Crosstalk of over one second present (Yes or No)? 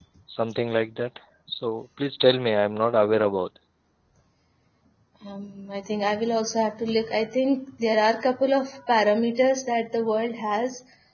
No